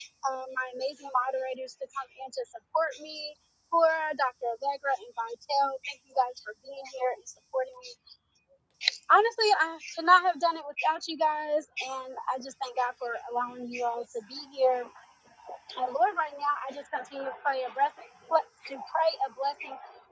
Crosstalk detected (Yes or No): No